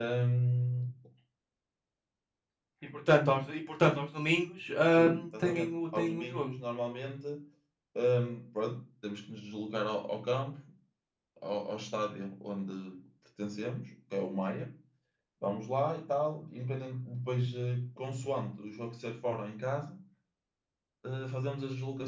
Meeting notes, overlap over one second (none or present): present